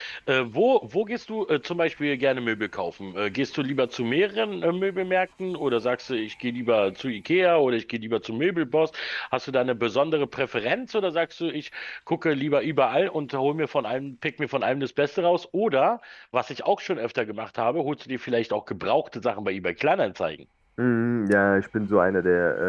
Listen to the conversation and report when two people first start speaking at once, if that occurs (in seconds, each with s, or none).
none